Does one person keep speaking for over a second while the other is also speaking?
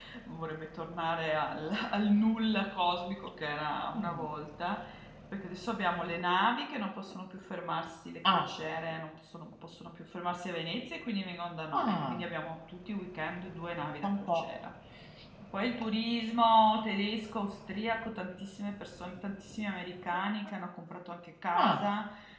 No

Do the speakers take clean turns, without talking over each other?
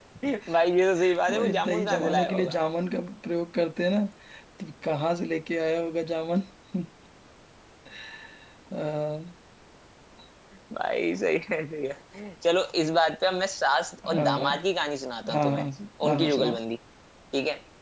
No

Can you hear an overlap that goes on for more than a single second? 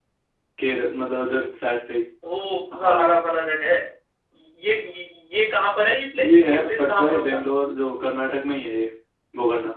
Yes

